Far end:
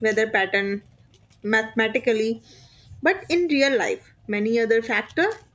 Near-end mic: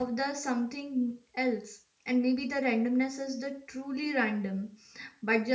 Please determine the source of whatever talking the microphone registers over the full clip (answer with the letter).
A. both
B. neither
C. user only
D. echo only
C